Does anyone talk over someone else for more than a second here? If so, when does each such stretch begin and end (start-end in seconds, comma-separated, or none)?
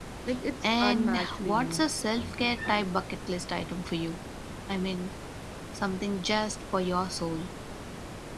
0.6-1.9